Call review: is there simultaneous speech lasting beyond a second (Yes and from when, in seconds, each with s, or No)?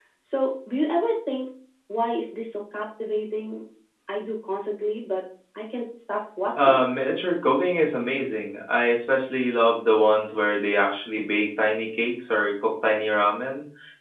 No